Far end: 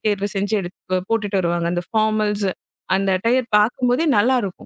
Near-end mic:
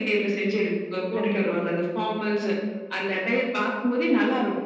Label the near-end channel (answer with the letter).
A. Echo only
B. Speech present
B